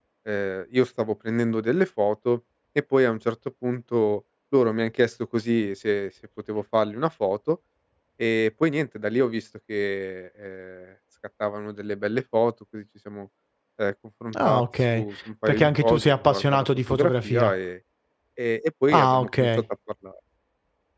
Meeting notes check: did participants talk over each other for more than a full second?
Yes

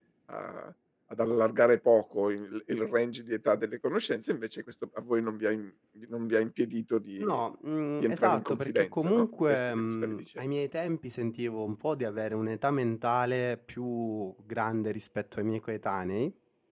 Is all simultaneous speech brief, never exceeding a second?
No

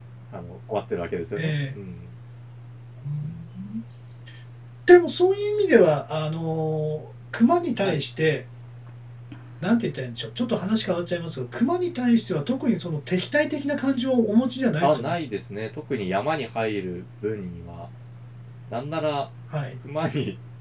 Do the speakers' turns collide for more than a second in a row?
No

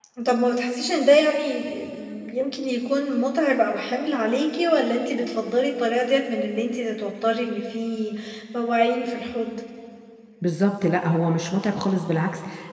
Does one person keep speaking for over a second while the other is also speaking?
No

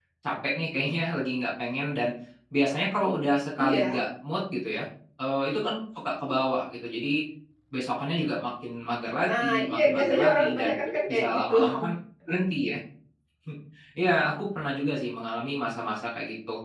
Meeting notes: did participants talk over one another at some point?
Yes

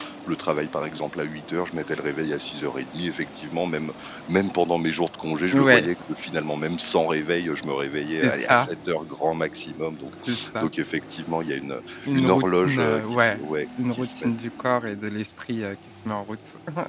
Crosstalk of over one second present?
Yes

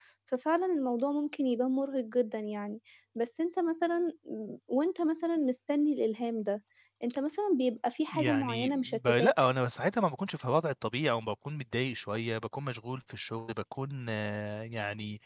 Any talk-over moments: Yes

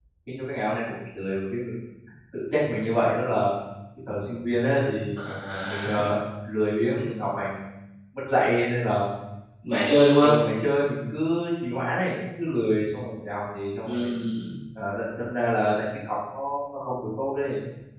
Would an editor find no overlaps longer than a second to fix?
Yes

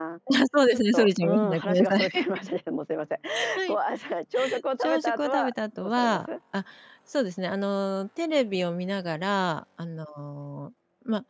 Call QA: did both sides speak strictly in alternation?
No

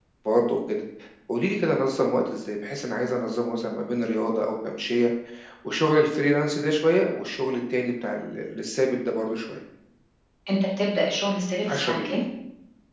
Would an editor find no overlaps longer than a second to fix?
Yes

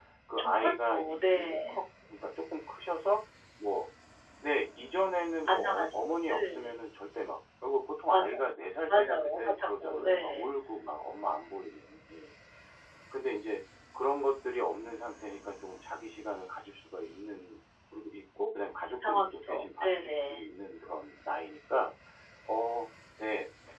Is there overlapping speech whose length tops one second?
Yes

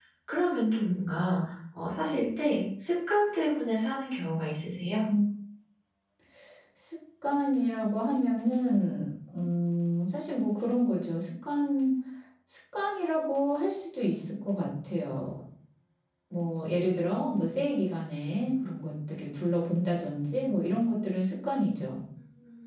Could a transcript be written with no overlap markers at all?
Yes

